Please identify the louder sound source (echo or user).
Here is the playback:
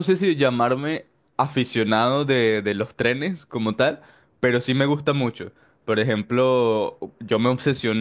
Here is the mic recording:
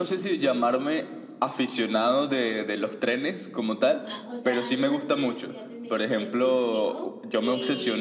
echo